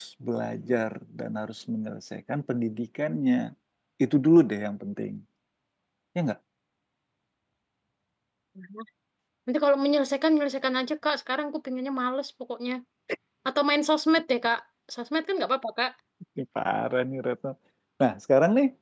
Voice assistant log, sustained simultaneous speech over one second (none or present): none